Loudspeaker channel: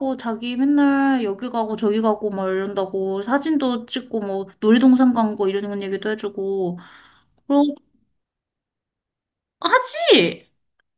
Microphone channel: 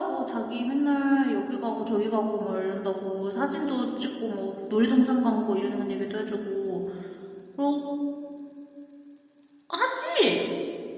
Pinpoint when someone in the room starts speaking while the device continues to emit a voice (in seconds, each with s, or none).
none